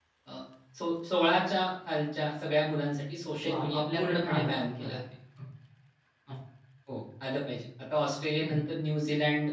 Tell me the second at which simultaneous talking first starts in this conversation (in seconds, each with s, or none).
3.4 s